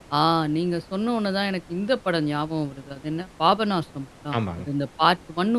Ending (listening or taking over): listening